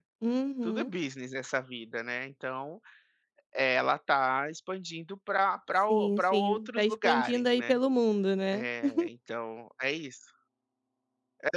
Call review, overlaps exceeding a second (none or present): present